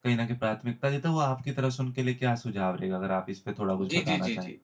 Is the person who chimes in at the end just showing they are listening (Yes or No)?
No